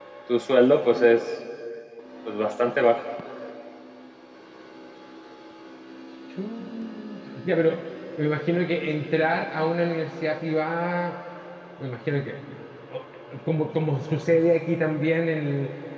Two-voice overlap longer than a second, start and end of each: none

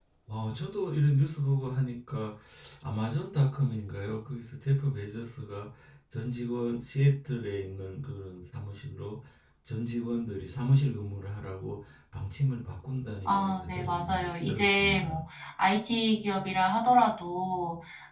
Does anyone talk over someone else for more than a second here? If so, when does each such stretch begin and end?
13.2-15.2

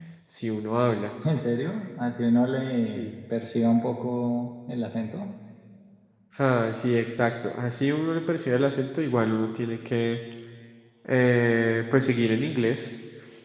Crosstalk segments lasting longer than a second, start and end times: none

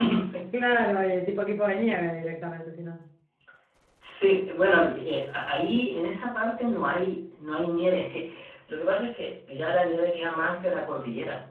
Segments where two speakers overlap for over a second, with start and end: none

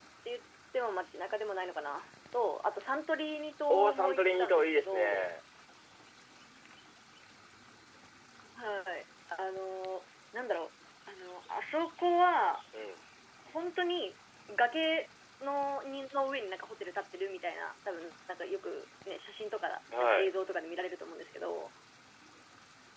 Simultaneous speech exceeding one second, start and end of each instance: 3.7-5.3

